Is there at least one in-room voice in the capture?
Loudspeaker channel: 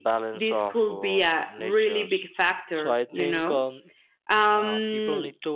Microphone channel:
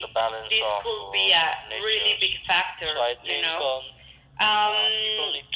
No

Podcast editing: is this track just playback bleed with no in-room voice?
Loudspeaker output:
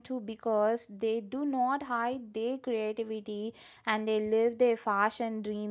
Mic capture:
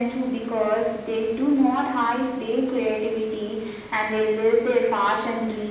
Yes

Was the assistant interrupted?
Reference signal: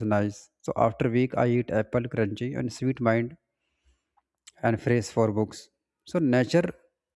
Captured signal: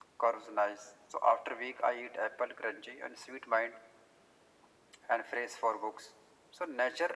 No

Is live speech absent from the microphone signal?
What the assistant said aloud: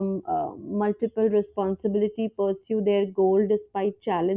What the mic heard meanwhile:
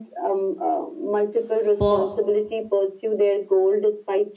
No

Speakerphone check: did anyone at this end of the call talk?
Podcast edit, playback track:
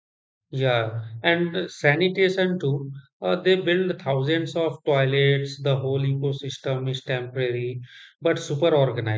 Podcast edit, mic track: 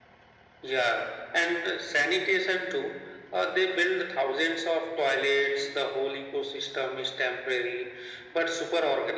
No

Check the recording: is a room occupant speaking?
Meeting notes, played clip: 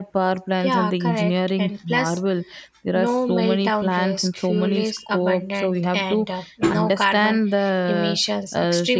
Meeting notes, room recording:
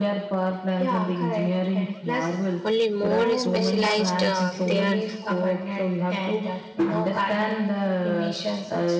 Yes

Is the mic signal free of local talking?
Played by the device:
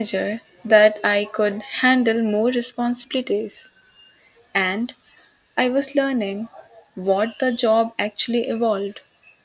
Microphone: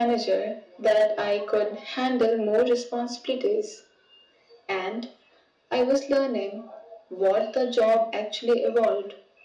Yes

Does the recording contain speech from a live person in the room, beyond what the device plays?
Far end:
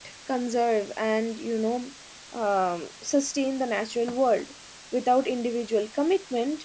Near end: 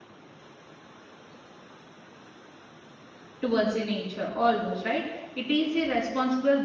Yes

